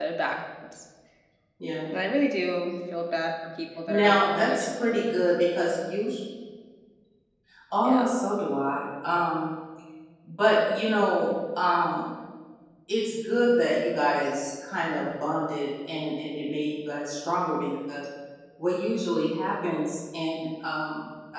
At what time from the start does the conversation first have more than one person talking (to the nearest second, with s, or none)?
4 s